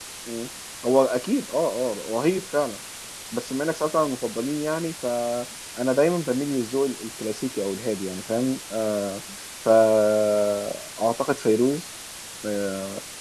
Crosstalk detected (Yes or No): No